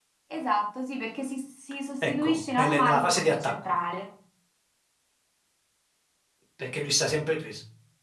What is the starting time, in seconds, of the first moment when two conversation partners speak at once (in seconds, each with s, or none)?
2.0 s